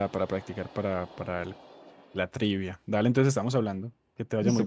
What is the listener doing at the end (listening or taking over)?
taking over